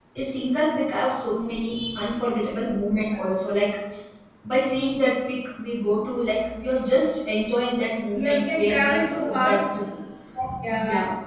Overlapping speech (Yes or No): Yes